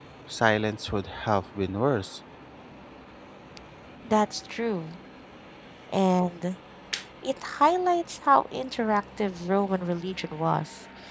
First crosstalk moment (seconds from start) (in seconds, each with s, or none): none